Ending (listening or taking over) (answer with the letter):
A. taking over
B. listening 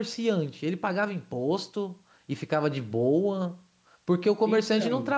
B